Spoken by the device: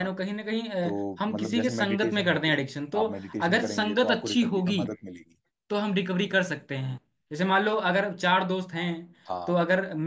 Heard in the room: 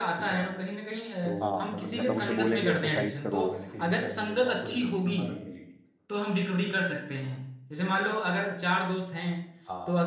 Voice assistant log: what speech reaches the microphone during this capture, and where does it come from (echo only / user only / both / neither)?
both